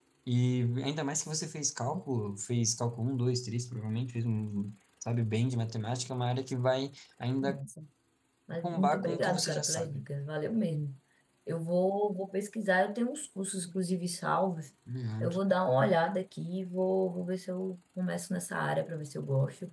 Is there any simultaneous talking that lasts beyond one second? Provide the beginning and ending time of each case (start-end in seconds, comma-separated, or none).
8.6-10.0